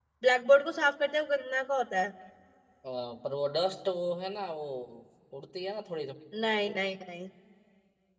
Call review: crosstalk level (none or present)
none